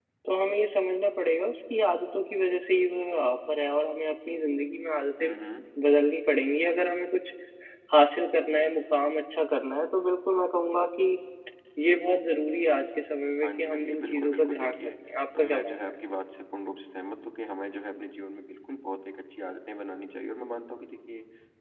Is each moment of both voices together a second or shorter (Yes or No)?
No